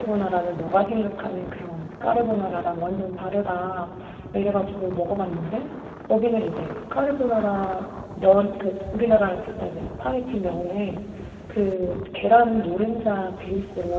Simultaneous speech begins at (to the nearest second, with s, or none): none